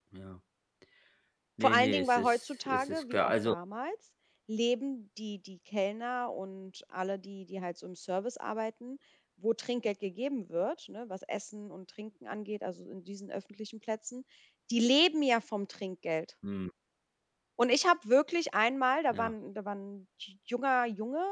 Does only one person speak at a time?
No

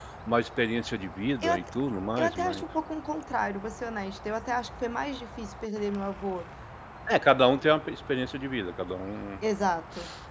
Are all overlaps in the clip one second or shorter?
Yes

